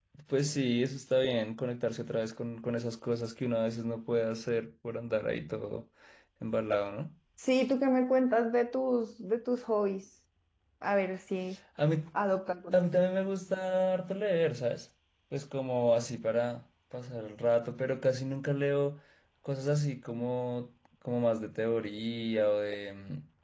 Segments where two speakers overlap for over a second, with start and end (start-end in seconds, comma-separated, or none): none